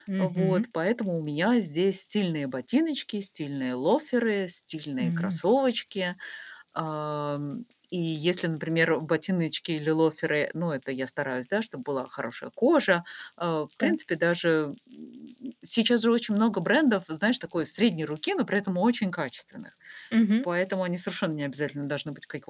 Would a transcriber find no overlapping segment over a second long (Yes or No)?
Yes